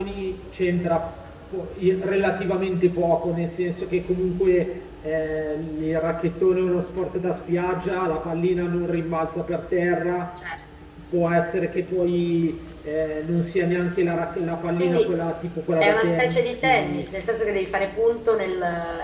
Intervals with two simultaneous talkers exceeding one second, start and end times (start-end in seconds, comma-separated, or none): 15.8-17.1